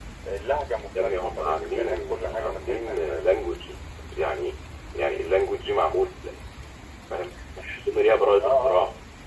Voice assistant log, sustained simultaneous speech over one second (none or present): present